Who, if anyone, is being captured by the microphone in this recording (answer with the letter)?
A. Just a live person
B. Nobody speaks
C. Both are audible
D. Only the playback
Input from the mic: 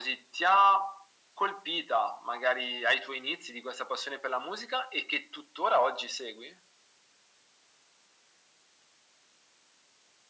D